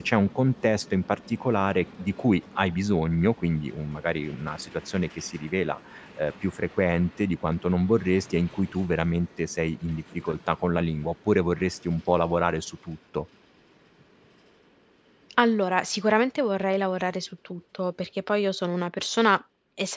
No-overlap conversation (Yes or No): Yes